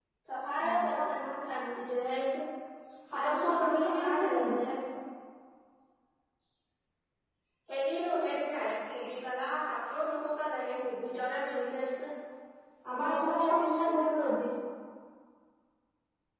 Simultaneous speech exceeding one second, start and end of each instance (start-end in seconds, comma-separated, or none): 3.1-4.6, 13.0-14.3